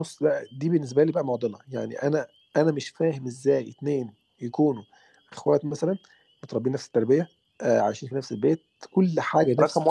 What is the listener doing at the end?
taking over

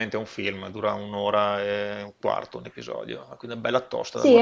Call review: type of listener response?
taking over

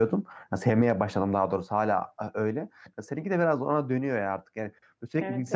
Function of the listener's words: listening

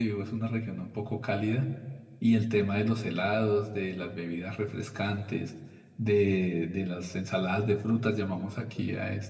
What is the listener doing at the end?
listening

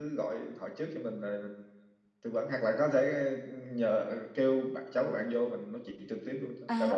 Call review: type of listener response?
taking over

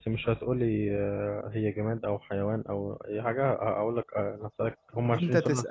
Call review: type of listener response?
taking over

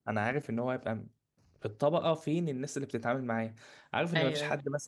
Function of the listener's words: listening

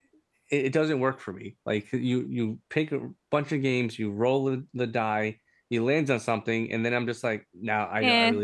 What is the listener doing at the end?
listening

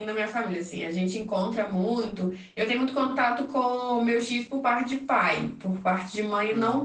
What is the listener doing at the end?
listening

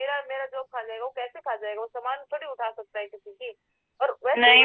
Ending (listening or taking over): taking over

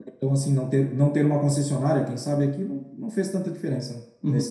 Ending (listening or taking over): taking over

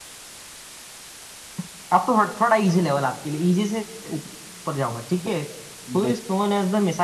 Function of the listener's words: listening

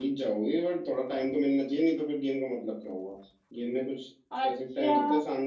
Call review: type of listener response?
listening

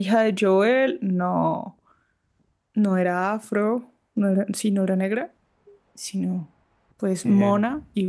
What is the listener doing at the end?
listening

